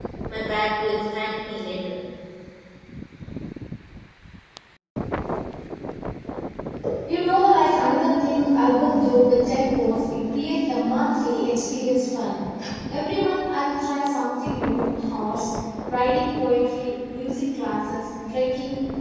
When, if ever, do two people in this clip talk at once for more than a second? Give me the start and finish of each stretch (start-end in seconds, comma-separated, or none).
none